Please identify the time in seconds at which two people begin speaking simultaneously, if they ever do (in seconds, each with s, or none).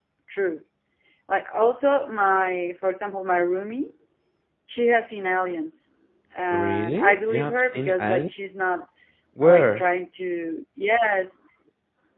6.5 s